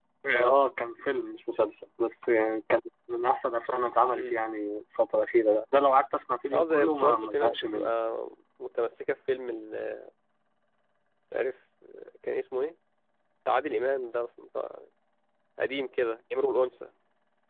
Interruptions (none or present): present